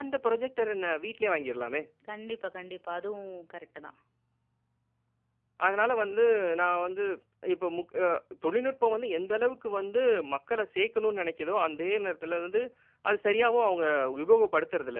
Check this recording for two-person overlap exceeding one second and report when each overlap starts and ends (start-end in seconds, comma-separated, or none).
none